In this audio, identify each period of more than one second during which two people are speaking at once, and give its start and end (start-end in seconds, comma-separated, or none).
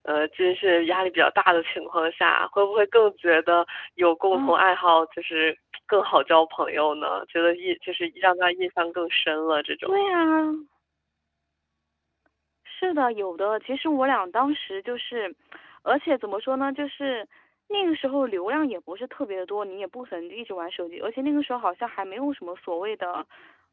none